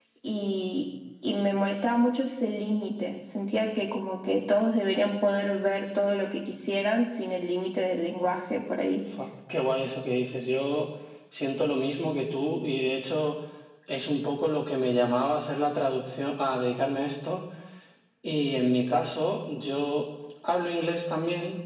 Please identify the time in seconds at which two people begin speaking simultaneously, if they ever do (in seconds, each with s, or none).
none